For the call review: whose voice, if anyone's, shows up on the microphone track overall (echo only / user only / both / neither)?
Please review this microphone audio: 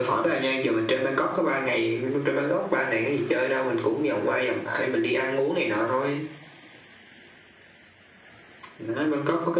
echo only